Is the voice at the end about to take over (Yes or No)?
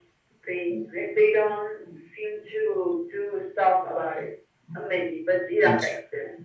No